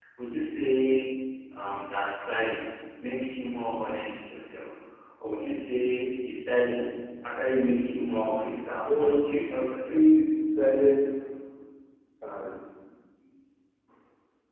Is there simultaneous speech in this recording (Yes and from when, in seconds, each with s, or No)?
Yes, from 8.9 s